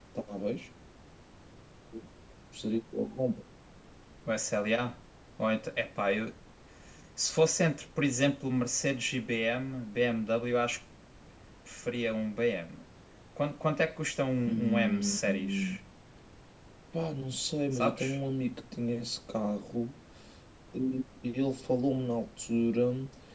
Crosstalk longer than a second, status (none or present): present